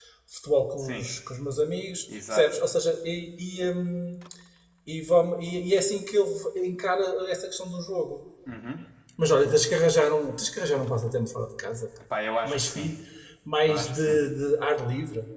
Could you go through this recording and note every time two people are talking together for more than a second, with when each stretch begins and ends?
none

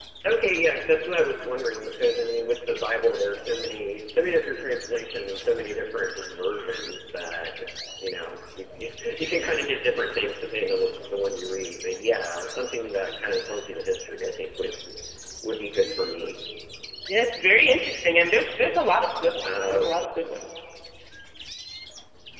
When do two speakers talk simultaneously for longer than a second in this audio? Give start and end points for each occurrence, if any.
none

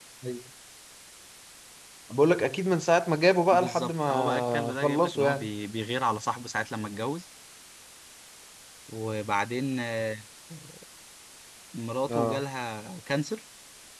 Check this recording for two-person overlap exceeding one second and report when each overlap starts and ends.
3.5-5.5

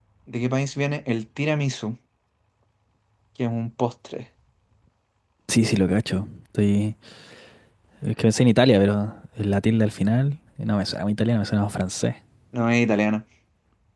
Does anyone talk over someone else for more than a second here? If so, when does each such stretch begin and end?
none

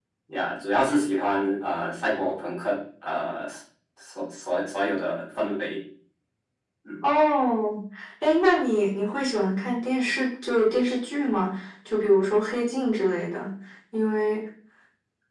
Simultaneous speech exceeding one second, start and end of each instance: none

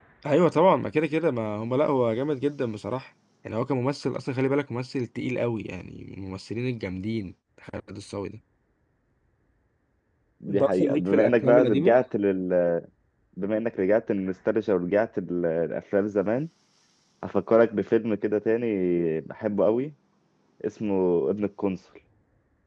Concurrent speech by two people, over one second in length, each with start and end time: 10.5-11.9

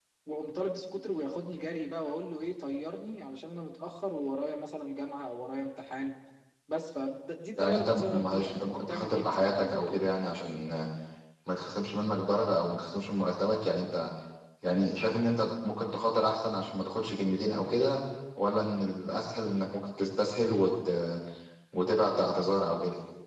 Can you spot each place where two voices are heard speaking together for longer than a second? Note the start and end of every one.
7.6-10.0

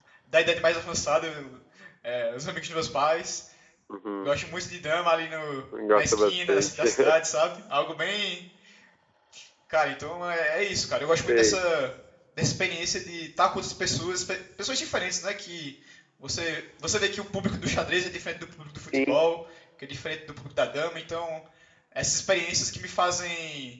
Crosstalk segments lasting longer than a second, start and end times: 6.0-7.2

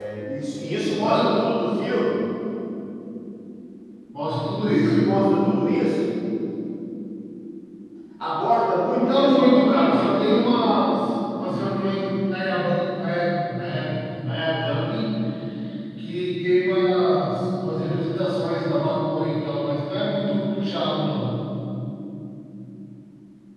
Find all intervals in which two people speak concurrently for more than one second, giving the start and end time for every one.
8.9-10.6

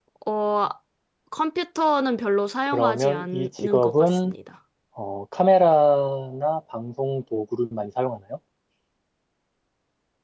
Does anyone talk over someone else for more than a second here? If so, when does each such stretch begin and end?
2.7-4.3

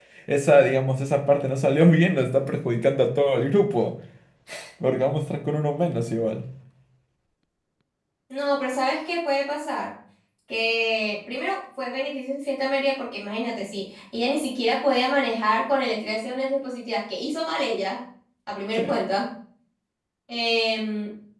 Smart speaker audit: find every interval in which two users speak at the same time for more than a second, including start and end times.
none

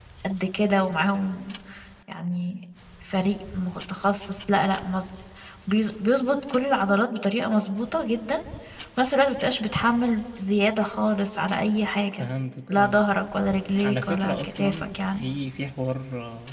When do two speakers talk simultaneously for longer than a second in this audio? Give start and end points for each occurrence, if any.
13.8-15.2

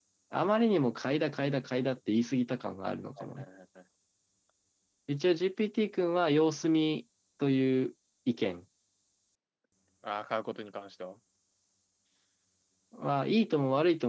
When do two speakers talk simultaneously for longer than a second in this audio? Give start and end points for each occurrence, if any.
none

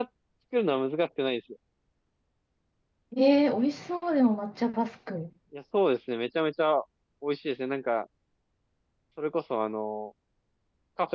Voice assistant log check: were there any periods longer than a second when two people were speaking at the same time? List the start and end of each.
none

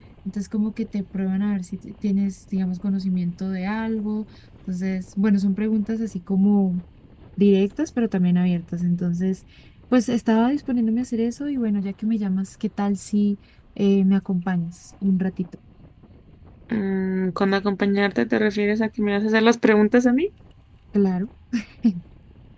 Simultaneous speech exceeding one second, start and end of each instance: none

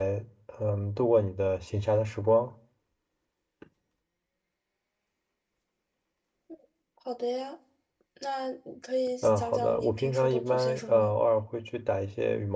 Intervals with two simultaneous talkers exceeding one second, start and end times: 9.2-11.1

